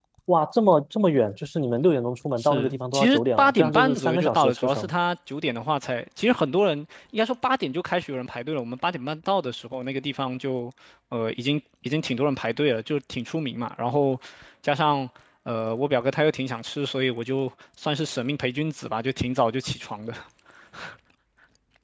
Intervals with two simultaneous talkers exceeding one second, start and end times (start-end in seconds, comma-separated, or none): 2.4-4.9